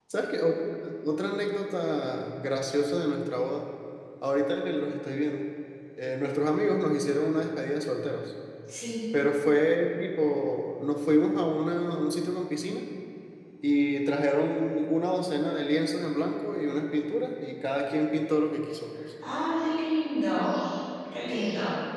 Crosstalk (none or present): none